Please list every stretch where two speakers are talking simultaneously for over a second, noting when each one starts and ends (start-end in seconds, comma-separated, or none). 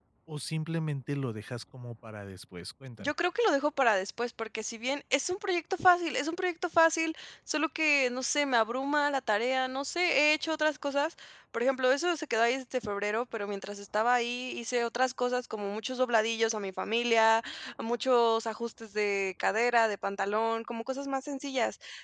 none